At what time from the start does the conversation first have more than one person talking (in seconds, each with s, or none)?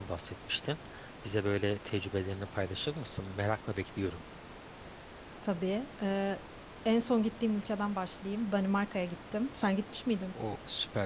none